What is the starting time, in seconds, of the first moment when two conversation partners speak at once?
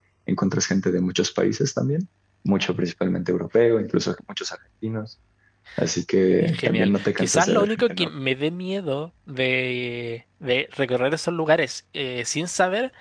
6.4 s

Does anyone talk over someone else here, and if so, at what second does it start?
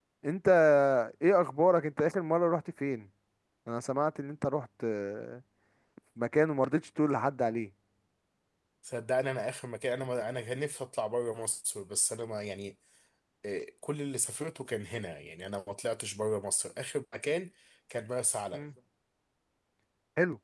none

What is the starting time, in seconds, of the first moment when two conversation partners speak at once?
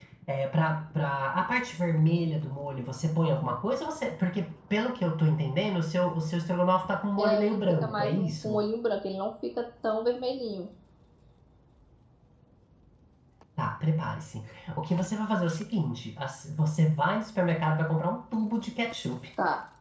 7.2 s

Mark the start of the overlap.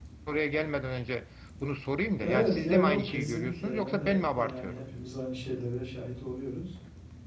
2.2 s

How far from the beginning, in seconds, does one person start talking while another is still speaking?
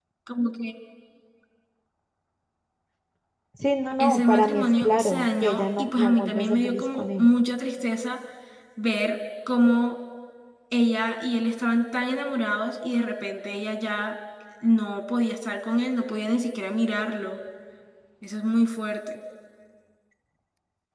4.0 s

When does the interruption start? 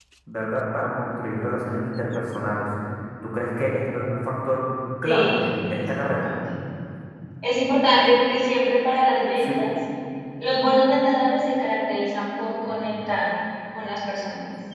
5.0 s

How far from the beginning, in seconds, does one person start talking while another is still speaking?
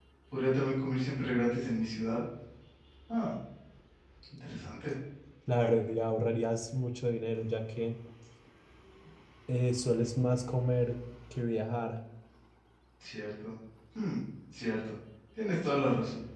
none

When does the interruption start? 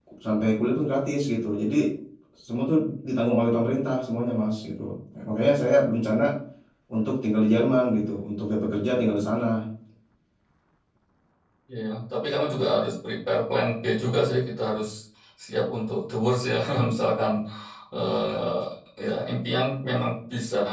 none

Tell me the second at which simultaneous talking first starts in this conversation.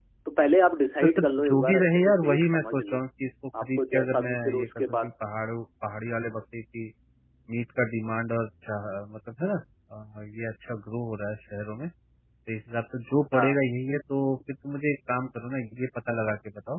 1.0 s

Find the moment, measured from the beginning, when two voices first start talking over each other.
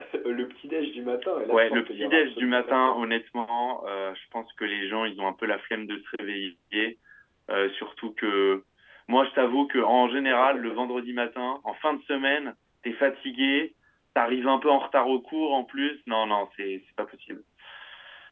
1.5 s

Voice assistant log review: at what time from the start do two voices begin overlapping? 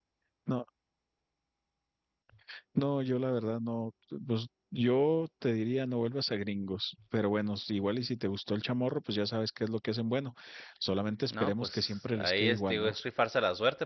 11.3 s

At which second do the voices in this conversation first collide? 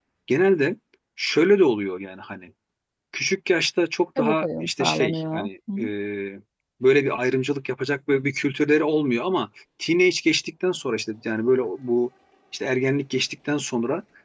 4.2 s

